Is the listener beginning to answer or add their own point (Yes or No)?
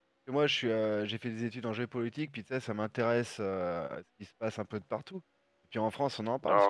No